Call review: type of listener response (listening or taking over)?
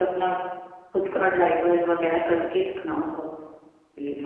taking over